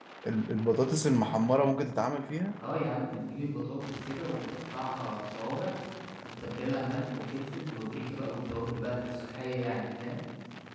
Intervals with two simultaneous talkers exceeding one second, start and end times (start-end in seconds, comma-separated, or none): none